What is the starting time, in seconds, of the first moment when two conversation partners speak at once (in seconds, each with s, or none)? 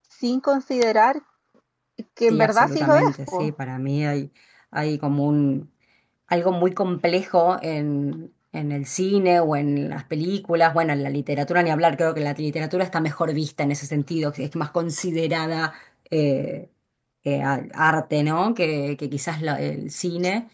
2.3 s